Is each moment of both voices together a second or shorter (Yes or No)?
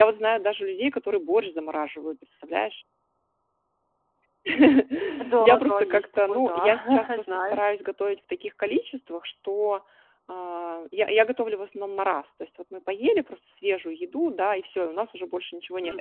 No